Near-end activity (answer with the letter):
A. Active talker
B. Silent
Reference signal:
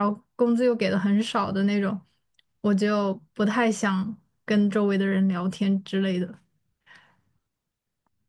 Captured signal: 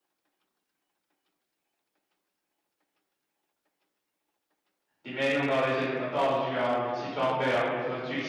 A